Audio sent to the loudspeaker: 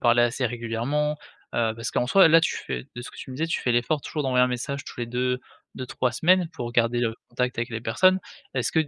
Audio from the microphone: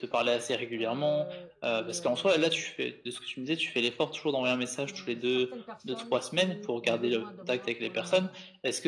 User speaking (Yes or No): Yes